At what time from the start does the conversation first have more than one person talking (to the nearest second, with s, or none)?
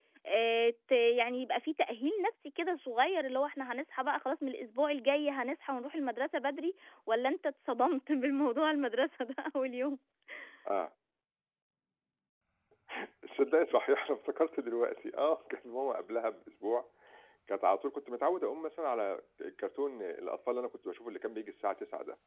none